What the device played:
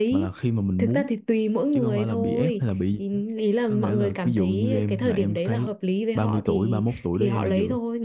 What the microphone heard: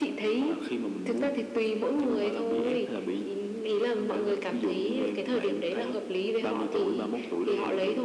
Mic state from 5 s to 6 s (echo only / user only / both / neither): echo only